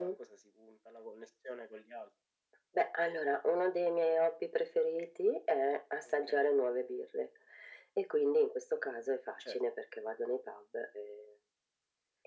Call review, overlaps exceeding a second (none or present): none